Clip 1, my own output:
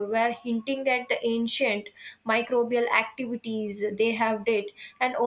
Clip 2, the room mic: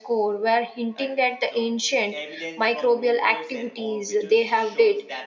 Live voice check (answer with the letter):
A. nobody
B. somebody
B